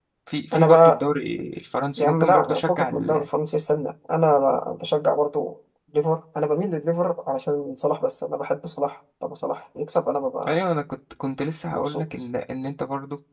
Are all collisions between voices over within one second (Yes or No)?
No